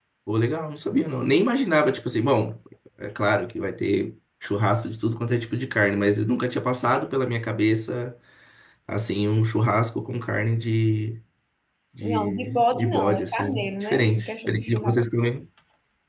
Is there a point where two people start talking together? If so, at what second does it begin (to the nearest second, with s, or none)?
12 s